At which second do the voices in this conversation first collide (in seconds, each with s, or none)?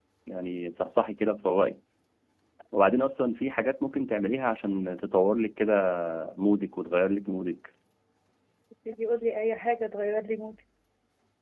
none